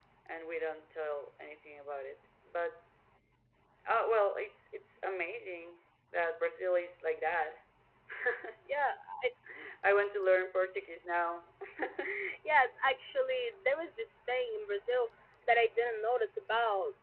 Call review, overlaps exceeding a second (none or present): none